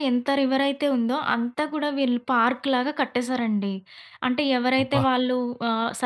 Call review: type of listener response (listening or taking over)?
listening